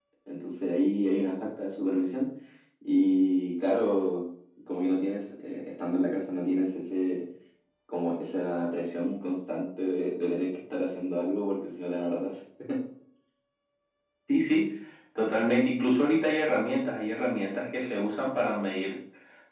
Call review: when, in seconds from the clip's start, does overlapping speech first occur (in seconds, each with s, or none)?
none